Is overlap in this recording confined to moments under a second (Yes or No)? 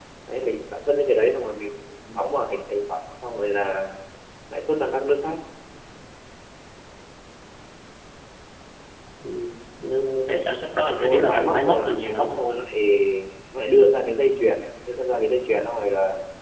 No